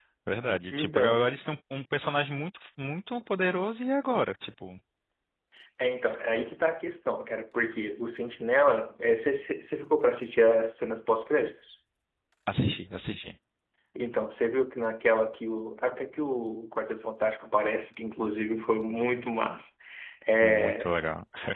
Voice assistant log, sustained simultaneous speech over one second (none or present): none